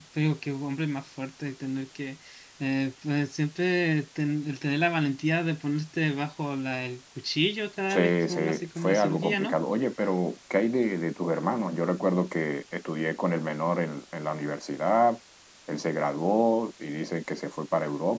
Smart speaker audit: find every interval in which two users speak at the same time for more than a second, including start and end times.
7.9-9.6

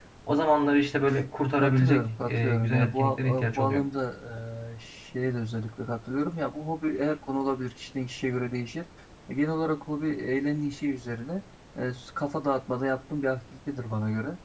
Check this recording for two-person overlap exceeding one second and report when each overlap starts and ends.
1.6-3.8

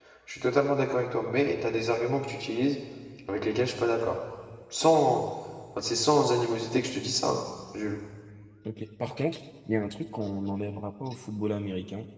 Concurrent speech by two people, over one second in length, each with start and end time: none

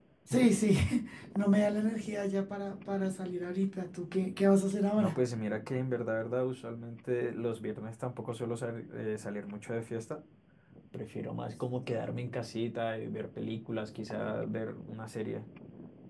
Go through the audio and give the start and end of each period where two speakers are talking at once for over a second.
none

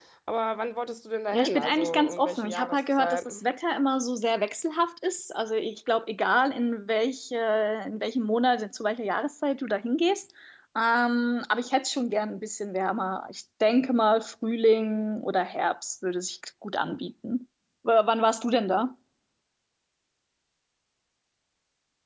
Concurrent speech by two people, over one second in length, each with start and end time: 1.3-3.3

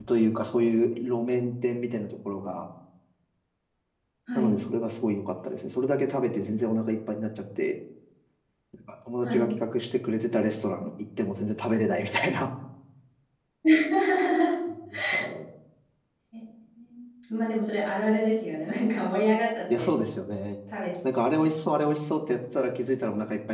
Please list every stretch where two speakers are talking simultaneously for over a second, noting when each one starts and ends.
none

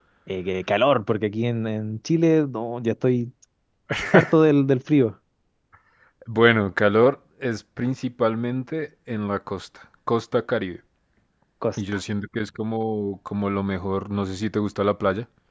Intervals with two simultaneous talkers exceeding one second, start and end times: none

